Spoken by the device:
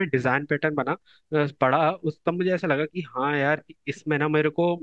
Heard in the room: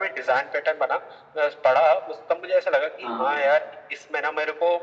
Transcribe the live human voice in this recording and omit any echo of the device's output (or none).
हाँ हाँ